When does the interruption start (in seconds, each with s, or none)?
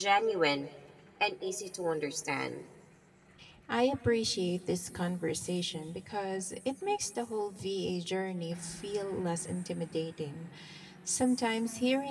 none